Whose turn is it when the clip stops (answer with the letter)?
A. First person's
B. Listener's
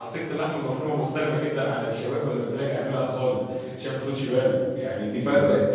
A